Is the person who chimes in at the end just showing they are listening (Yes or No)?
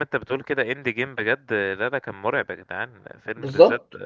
Yes